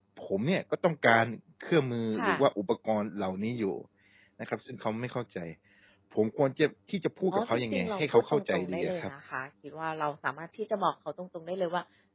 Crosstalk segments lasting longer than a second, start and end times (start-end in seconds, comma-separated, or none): 7.3-9.1